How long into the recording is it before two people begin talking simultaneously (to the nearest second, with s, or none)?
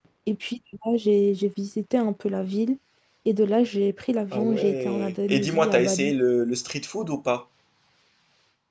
4 s